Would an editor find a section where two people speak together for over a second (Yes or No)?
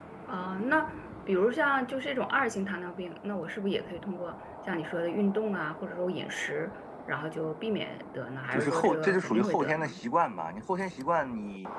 Yes